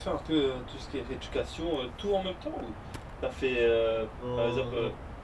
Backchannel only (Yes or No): Yes